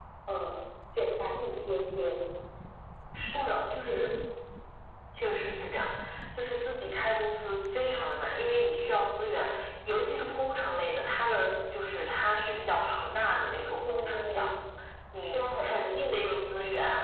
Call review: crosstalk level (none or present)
present